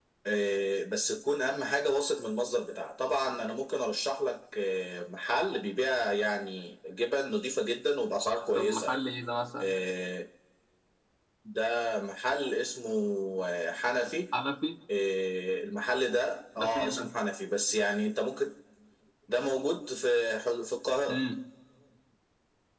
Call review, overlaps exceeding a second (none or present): none